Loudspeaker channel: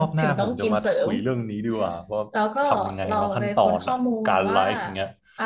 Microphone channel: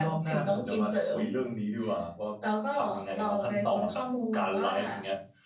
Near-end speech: none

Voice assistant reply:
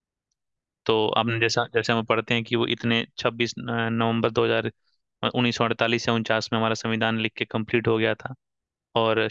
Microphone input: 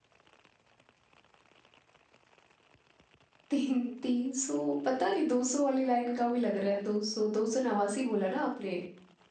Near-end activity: present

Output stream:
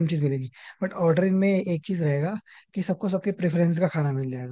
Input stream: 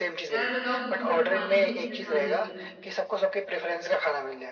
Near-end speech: present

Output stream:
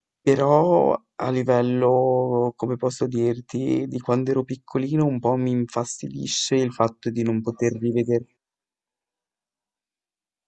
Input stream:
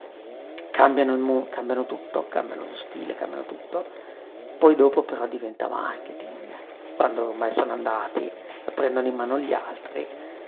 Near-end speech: present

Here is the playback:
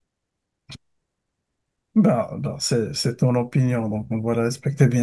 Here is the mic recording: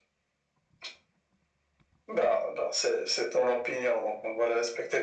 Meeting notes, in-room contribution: none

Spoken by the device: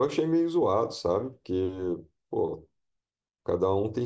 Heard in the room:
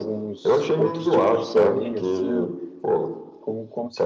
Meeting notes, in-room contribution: present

